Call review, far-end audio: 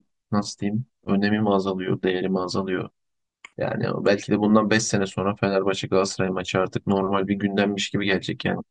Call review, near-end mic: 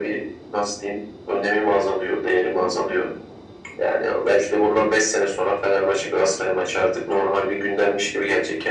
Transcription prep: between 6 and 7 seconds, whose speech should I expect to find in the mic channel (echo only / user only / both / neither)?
echo only